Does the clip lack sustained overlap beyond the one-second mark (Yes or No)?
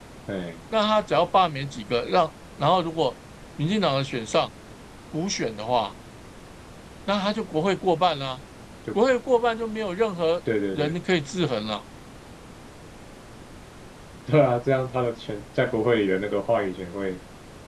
Yes